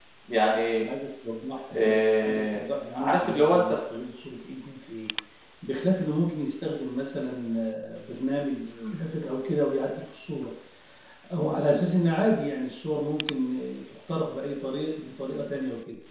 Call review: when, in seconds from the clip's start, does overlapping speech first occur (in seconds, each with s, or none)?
1.7 s